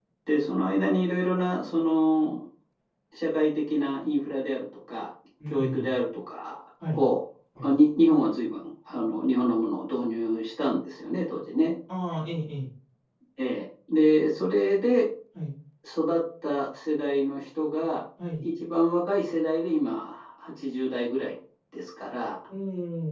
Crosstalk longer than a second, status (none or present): none